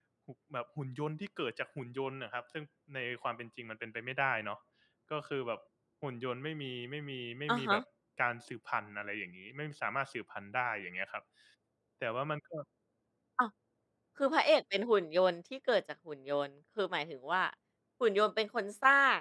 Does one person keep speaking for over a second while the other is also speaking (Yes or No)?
No